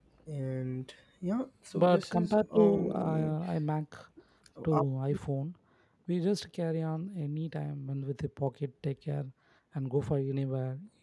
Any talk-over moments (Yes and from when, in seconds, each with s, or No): Yes, from 1.7 s